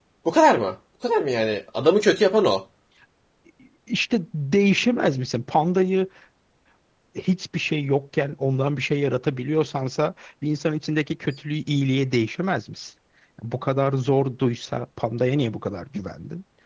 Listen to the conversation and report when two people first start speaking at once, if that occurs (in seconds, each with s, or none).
none